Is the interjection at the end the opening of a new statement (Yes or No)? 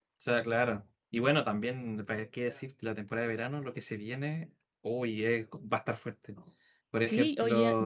Yes